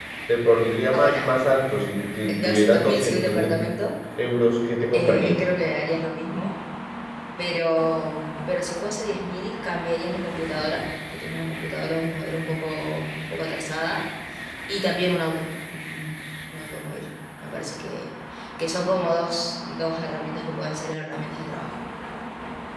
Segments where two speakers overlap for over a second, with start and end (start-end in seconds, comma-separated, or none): 2.4-3.7